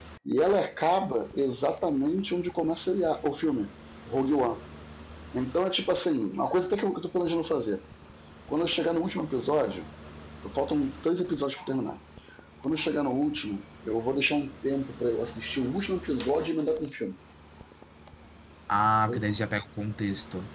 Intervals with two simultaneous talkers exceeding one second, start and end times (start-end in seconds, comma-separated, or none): none